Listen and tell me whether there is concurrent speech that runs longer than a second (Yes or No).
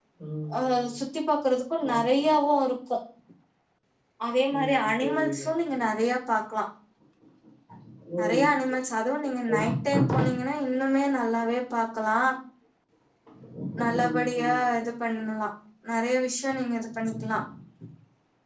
Yes